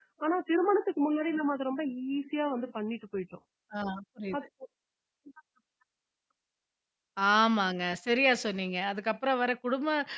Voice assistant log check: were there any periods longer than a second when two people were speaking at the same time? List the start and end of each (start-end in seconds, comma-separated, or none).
none